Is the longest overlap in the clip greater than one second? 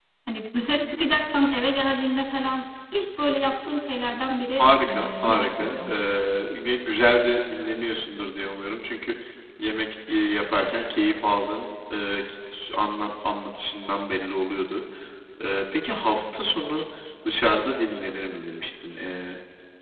Yes, from 4.6 s

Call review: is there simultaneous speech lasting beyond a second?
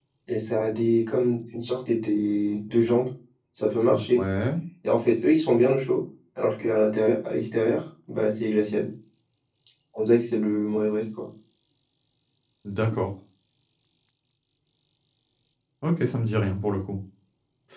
No

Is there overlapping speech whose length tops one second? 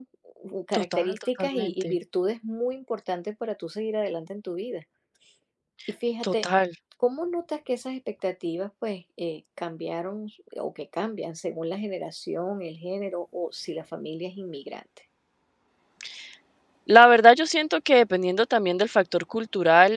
Yes, from 0.7 s

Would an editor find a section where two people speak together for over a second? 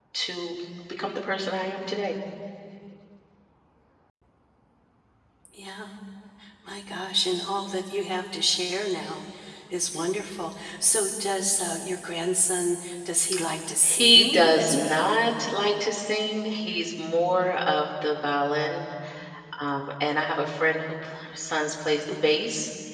Yes, from 13.8 s

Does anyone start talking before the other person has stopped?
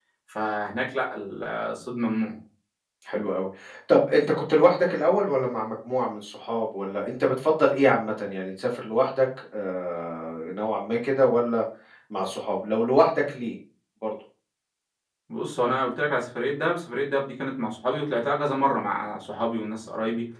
No

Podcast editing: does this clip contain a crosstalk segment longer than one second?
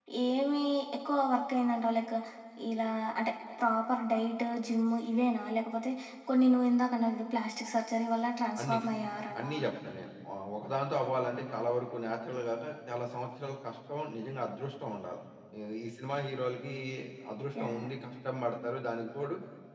No

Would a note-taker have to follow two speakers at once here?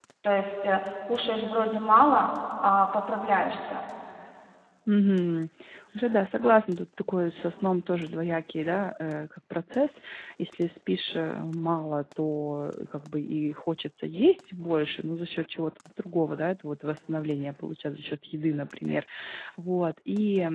No

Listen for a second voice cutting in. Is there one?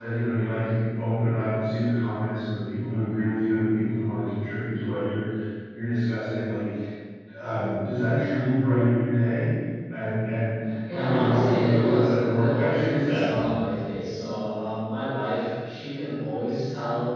Yes, from 10.9 s

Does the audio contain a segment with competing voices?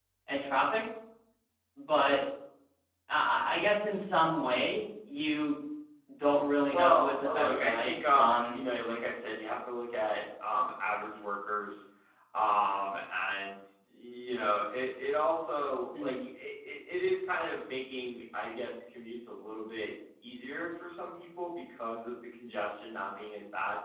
Yes, from 6.7 s

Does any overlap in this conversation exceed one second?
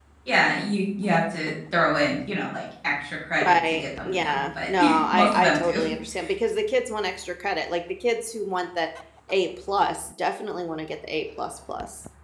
Yes, from 3.4 s

